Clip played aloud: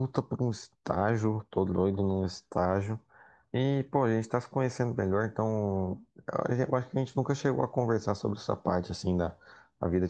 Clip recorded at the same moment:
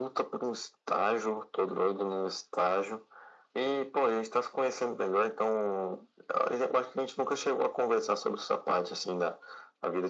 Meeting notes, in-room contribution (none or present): none